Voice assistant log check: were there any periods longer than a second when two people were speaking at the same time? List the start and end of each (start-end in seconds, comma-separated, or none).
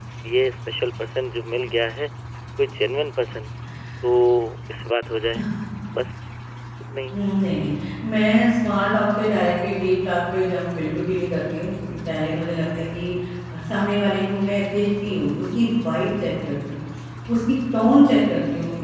none